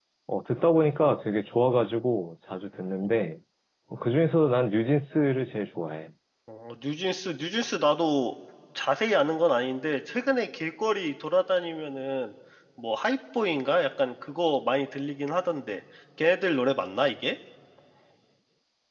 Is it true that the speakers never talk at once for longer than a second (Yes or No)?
Yes